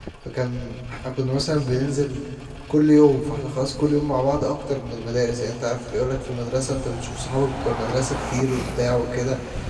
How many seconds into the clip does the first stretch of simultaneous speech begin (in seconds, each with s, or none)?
none